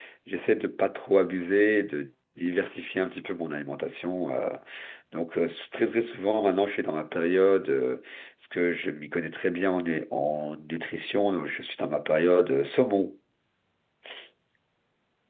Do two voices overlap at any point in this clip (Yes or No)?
No